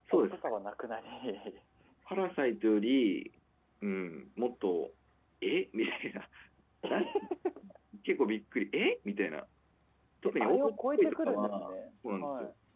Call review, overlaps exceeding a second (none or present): present